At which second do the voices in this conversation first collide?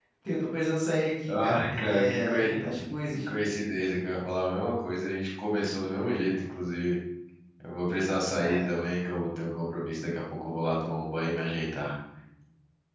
1 s

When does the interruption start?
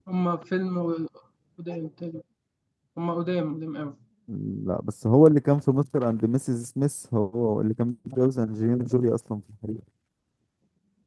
none

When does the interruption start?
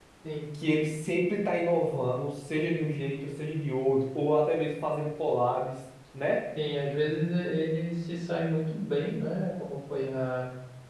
none

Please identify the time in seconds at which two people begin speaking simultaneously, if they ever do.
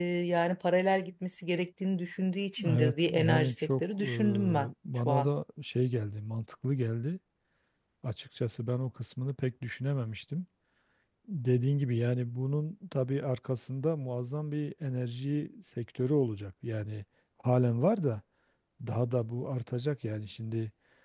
3 s

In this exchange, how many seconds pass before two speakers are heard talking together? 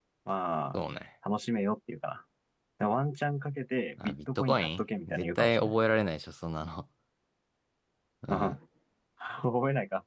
4 s

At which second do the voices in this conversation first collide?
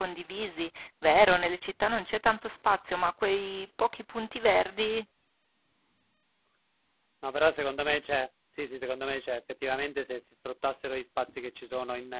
none

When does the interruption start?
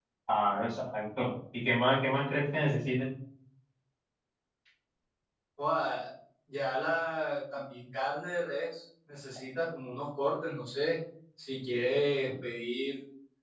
none

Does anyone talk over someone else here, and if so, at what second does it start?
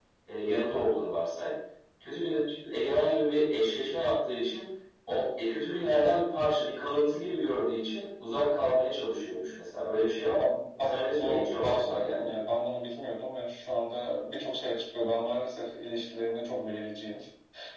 11 s

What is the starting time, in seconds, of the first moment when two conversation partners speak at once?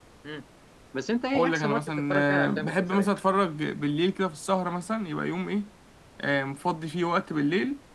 1 s

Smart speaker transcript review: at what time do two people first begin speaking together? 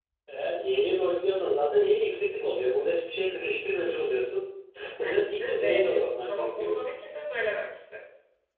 5 s

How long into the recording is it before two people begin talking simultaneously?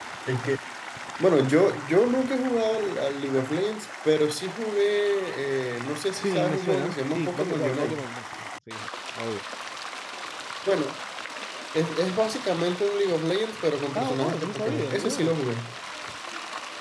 6 s

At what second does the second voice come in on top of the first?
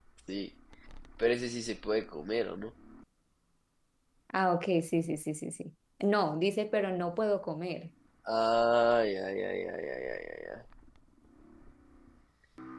none

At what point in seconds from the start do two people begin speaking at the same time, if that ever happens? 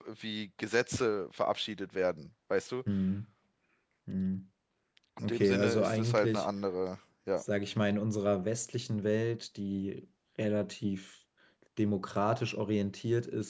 5 s

